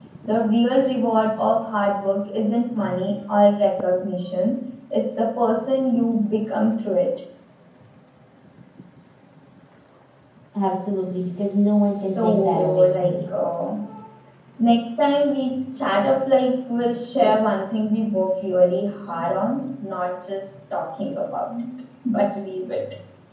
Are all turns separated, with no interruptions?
No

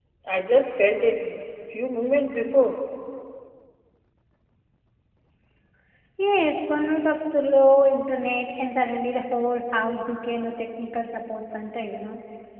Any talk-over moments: No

